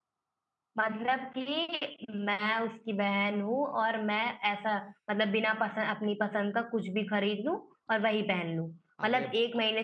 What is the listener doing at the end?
listening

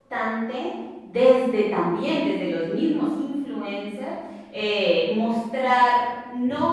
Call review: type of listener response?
listening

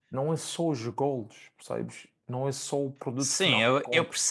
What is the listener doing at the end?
taking over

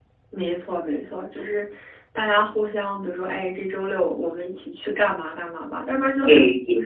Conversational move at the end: taking over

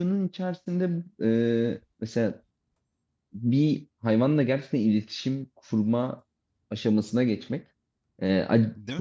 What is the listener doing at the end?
listening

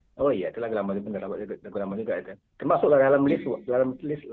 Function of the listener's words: listening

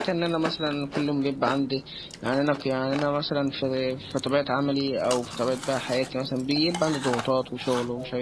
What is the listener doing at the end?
listening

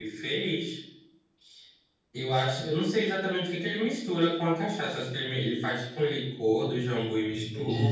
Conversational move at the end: listening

